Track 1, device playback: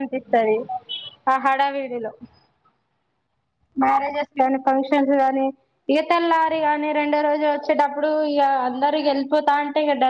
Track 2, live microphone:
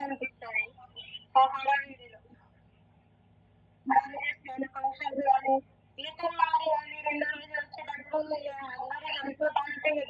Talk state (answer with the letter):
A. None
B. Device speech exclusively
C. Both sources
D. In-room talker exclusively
B